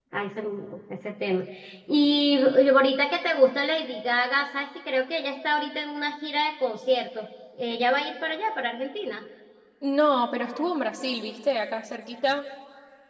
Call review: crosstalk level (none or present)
none